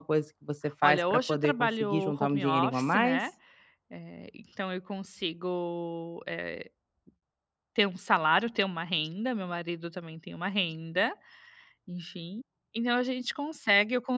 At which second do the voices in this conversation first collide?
0.8 s

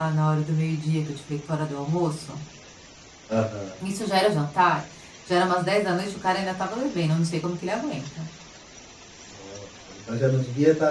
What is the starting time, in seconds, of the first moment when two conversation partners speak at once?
none

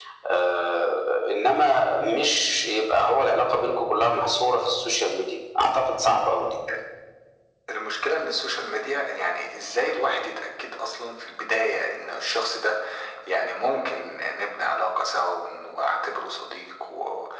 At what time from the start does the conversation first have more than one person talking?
none

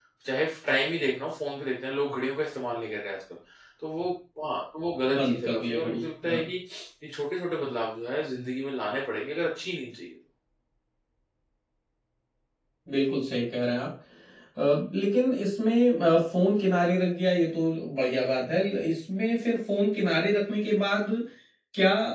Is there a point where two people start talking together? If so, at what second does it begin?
5.1 s

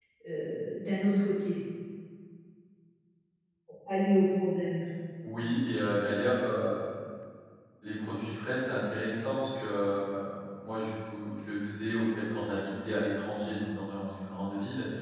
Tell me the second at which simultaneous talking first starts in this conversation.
none

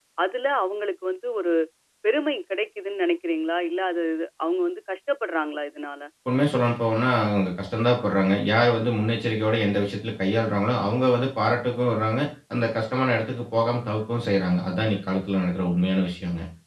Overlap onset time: none

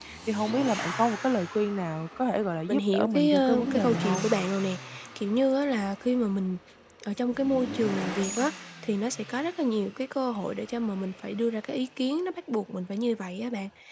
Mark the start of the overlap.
2.7 s

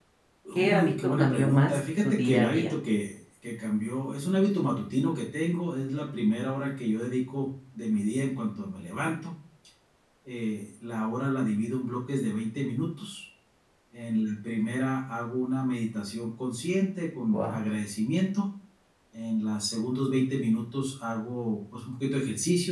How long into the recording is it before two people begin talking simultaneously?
0.6 s

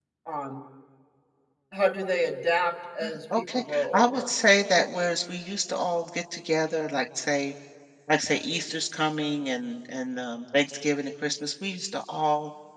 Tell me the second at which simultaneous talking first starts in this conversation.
3.0 s

